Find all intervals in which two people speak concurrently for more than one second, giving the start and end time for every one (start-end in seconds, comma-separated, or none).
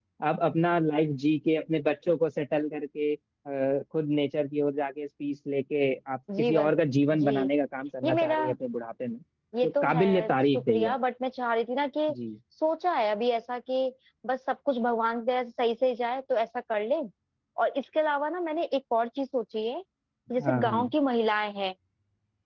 9.6-10.9